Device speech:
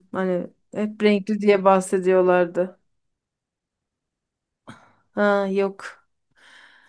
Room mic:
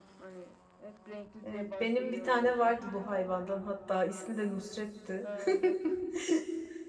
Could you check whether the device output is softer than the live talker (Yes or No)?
Yes